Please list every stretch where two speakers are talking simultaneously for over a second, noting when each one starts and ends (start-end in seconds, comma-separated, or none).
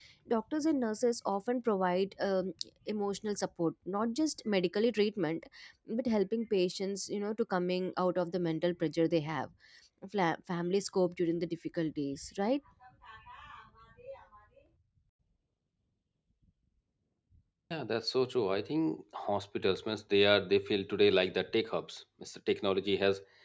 none